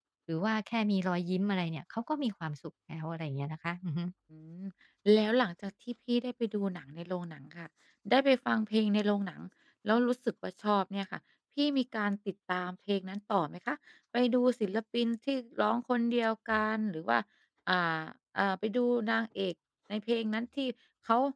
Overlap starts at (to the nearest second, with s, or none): none